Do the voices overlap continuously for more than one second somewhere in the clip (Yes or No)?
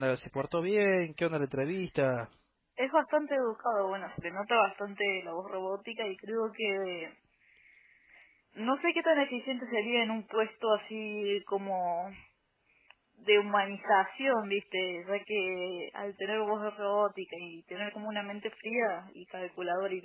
No